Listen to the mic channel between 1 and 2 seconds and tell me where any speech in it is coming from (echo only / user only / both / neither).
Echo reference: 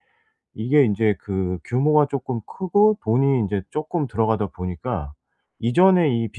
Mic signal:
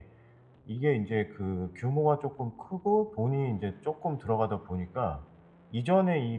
echo only